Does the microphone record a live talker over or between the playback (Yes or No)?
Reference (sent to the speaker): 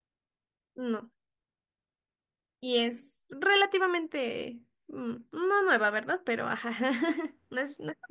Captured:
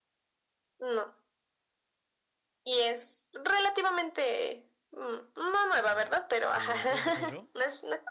Yes